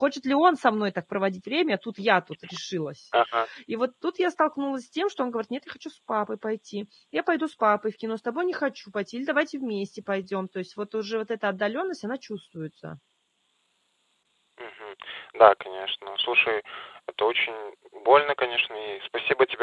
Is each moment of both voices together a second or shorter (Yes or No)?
Yes